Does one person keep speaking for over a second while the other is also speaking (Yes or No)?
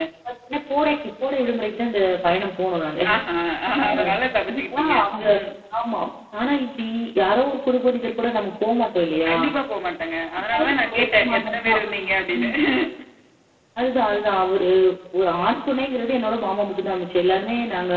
Yes